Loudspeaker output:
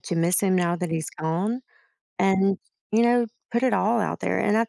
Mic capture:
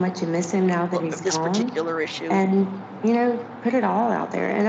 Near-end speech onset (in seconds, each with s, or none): 0.9 s